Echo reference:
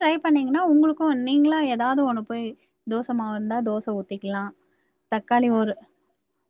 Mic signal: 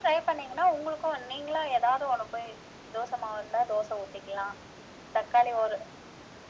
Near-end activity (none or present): none